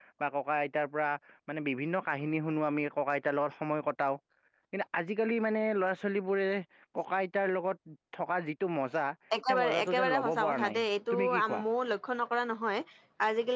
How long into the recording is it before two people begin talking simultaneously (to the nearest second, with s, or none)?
9 s